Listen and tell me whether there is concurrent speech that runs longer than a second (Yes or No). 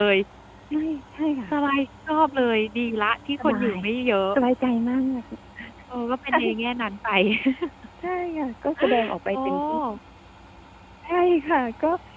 No